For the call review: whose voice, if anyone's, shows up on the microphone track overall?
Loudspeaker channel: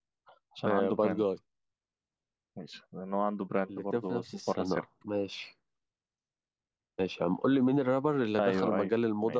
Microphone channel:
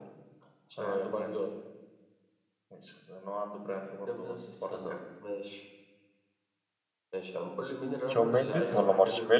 both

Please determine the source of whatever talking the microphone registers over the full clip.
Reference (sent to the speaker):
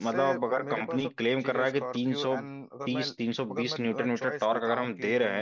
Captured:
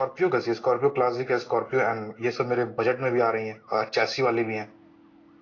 user only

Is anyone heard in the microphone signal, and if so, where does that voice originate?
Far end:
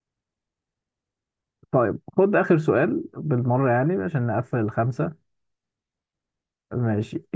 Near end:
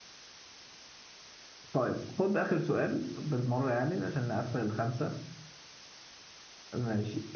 echo only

